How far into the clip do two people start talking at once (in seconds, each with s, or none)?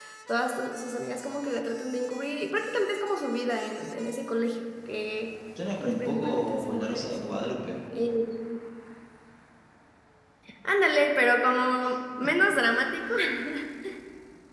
5.8 s